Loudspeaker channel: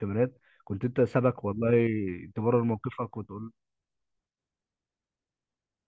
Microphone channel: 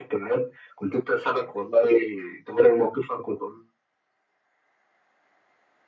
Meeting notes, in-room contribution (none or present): none